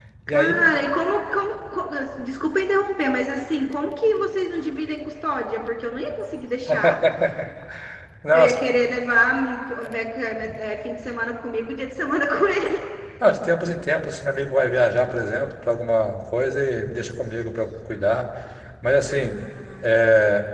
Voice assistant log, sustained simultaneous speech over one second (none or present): none